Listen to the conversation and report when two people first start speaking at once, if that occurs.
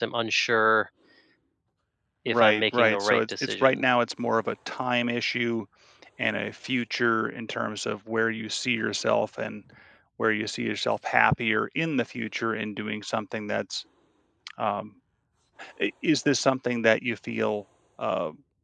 2.3 s

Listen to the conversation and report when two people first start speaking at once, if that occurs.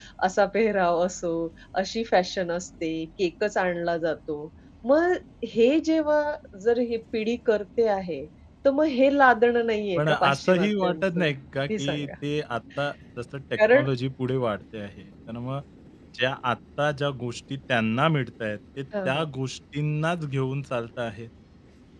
10.0 s

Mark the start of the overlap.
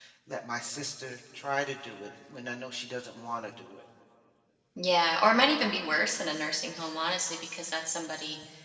none

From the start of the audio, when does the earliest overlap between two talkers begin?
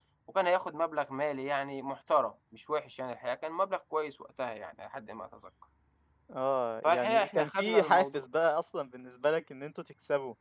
6.8 s

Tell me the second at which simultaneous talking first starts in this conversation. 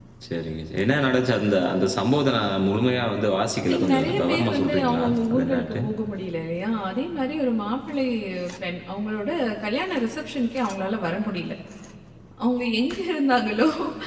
3.7 s

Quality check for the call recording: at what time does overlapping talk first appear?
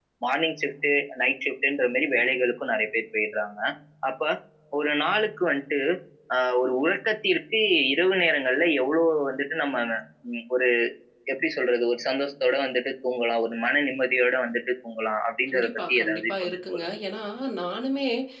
15.5 s

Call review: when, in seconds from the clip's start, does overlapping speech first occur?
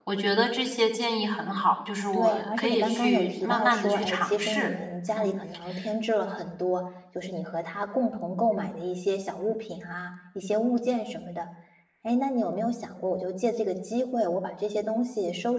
2.1 s

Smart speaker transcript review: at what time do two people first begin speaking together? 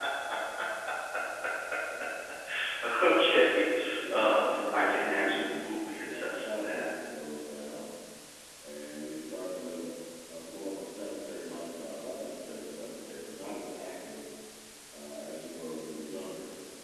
4.1 s

